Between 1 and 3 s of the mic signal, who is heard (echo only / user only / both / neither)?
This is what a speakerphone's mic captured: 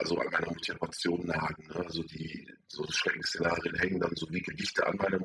echo only